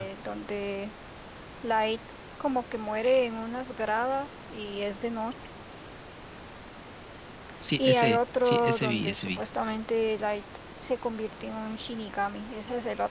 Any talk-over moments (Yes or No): Yes